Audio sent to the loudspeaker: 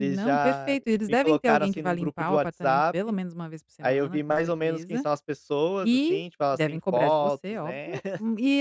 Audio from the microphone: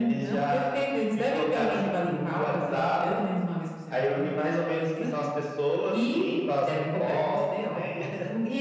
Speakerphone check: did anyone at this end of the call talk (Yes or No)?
No